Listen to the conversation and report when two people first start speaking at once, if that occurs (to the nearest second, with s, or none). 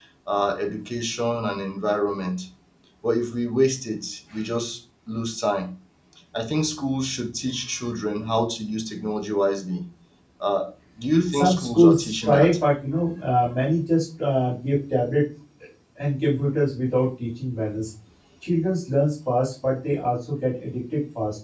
11 s